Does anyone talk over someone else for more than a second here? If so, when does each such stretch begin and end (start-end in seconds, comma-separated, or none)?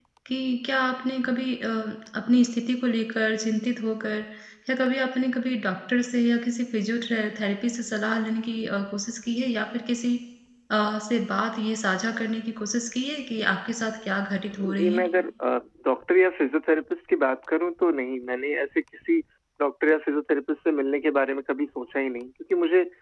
none